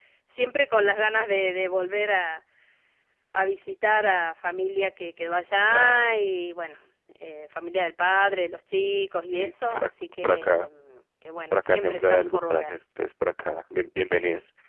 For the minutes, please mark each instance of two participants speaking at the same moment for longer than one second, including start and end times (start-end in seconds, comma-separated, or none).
9.3-10.7, 11.5-12.7